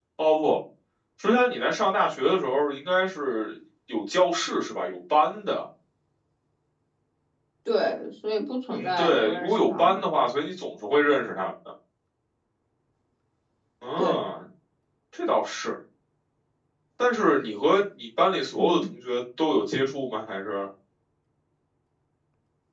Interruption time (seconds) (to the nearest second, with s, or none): 9 s